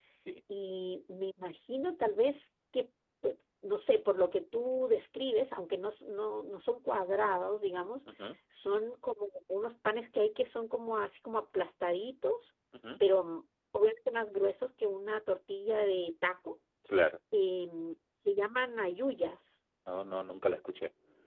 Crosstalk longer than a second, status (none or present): none